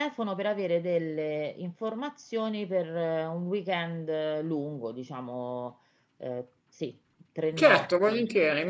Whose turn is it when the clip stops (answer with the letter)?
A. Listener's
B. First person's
A